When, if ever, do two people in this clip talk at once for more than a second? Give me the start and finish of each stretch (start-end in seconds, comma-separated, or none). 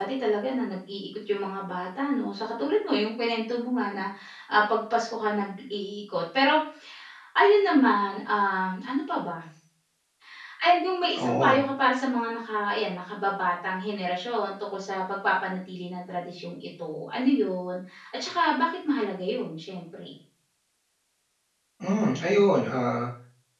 none